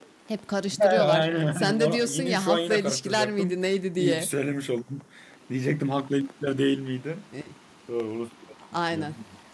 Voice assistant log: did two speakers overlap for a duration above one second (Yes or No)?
Yes